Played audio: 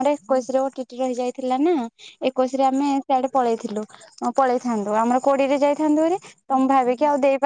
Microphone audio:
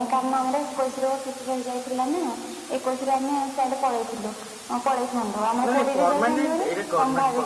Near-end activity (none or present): present